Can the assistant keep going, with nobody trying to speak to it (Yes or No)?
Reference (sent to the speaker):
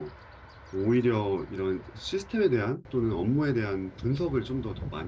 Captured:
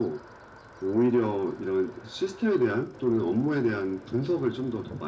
Yes